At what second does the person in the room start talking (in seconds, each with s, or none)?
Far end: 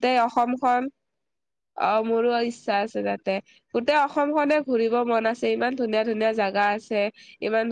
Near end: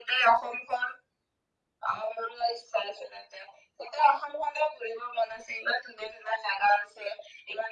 none